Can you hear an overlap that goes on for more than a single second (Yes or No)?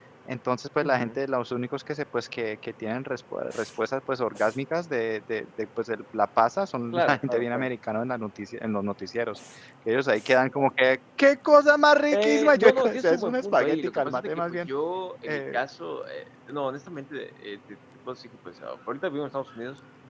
Yes